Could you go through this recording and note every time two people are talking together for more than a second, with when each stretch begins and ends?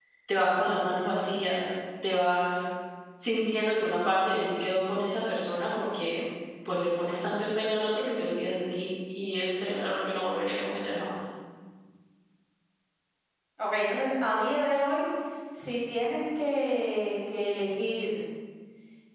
none

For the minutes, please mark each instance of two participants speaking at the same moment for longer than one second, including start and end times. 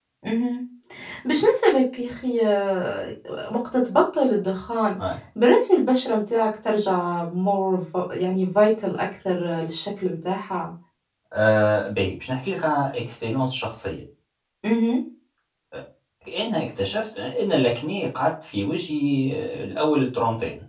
none

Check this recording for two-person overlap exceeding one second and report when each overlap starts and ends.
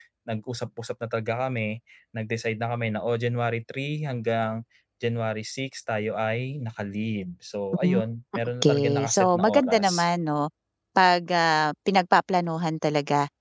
8.6-10.1

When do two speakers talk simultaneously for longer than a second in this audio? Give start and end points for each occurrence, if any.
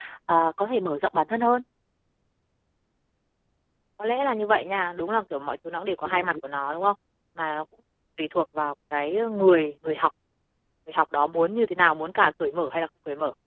none

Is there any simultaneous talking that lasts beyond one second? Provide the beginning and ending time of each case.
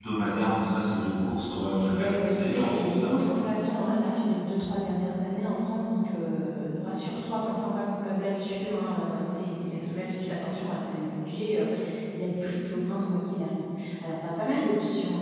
1.8-3.1

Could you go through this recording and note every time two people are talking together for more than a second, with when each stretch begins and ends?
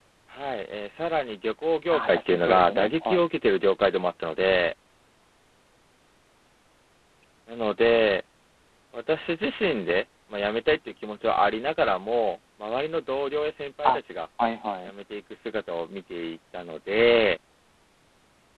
1.9-3.2

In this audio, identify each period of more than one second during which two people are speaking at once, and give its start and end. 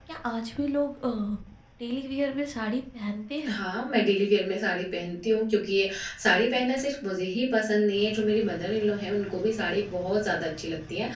none

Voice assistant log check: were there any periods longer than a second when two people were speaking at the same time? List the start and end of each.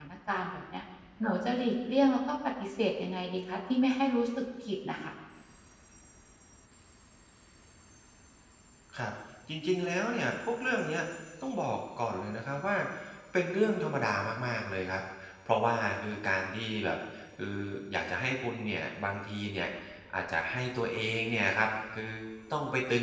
none

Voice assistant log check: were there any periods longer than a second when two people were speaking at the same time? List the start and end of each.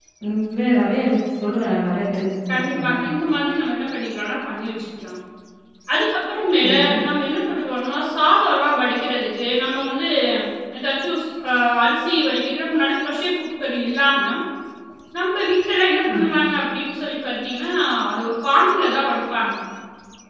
none

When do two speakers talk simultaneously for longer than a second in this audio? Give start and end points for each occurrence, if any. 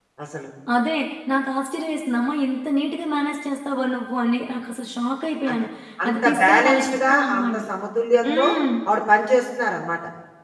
6.1-7.6

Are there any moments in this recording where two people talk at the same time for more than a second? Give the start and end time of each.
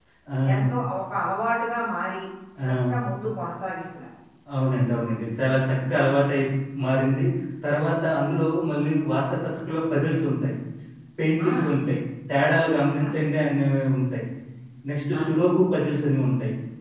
none

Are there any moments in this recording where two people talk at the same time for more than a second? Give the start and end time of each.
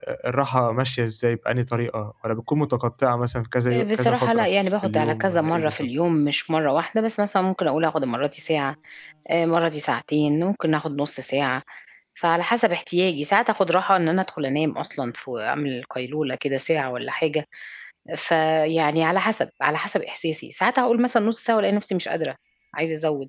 3.7-5.9

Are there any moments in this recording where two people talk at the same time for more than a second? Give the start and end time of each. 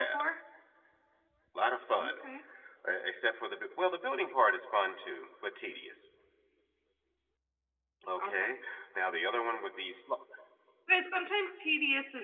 none

